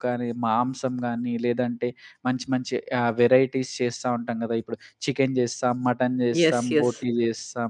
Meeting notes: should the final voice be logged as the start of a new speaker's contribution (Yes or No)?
No